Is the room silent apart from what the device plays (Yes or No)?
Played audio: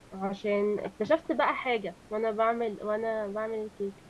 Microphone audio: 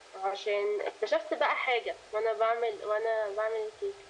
Yes